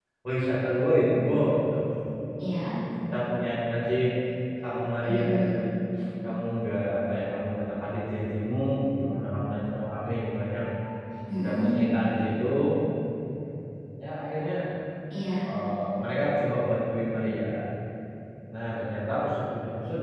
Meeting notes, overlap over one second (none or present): none